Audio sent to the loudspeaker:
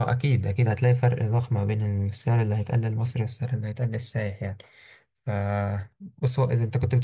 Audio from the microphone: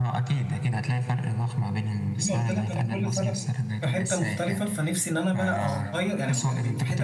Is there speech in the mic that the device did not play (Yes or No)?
Yes